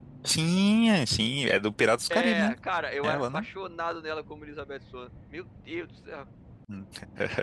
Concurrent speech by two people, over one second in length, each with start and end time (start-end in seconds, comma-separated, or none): none